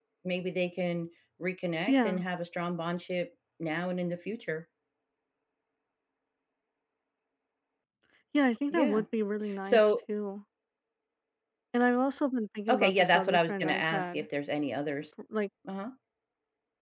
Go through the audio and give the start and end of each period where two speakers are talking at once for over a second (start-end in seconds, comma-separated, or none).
12.7-14.3